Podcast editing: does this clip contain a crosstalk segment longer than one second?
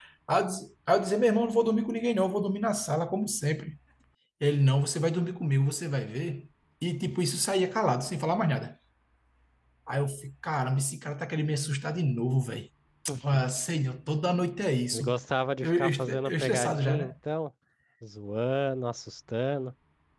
Yes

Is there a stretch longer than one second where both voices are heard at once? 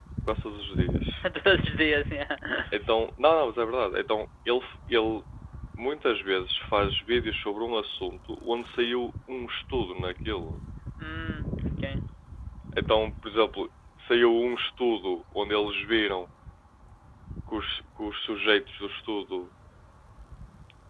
No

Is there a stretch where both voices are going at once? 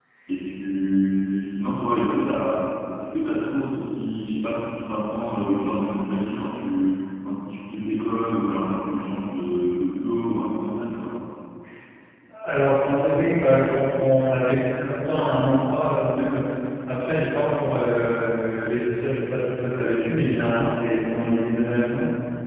No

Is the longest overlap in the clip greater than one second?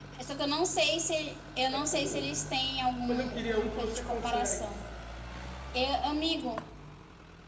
Yes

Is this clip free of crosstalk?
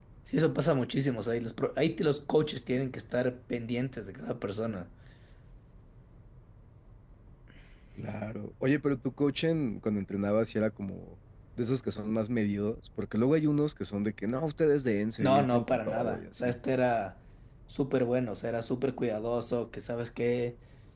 No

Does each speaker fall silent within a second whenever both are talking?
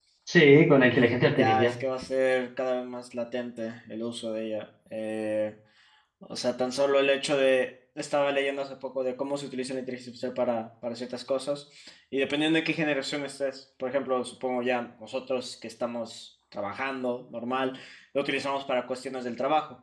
Yes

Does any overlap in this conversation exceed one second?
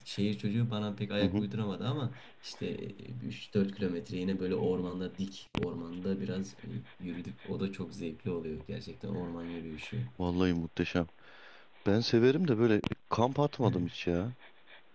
No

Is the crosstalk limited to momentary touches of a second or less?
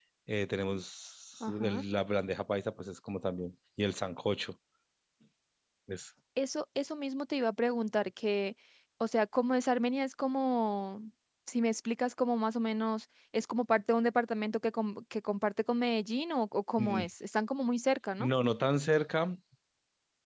Yes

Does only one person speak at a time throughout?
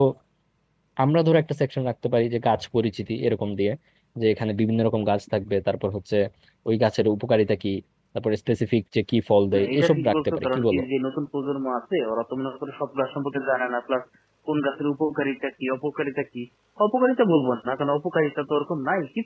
No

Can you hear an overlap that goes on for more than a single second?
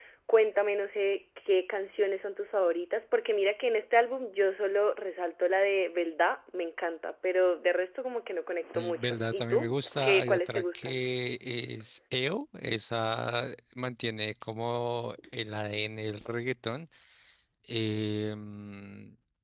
Yes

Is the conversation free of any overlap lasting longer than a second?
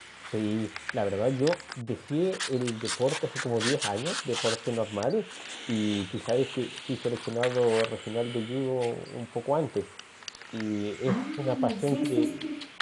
No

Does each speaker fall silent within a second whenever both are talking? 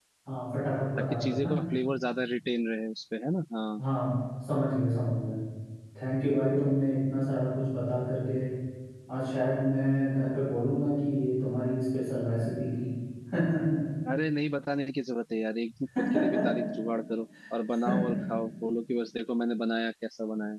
Yes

